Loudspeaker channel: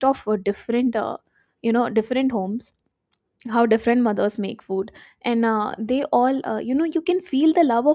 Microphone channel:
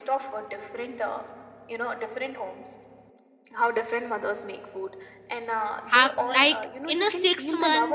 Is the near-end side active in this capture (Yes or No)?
Yes